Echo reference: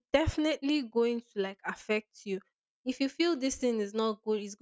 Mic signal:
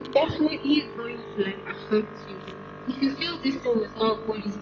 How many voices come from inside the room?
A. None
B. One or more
A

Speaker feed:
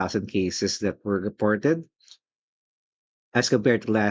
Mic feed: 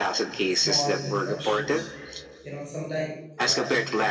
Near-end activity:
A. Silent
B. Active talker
B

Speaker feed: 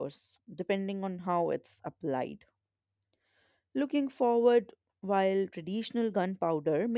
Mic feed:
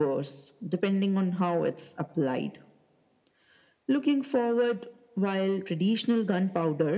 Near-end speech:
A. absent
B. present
A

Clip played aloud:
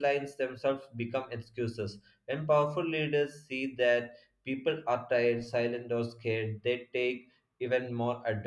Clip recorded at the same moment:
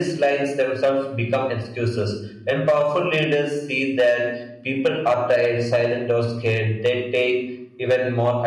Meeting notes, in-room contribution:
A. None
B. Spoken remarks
A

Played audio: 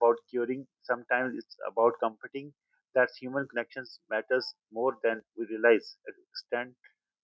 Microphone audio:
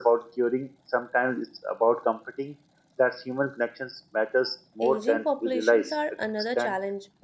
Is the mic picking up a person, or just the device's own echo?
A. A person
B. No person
A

